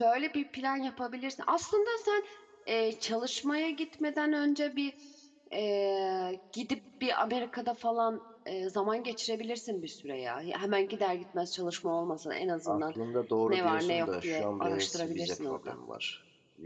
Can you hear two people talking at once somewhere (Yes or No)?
Yes